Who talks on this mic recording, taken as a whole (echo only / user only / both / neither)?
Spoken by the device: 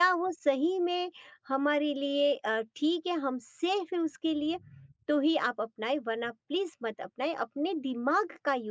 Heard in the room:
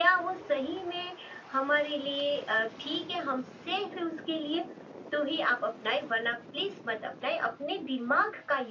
echo only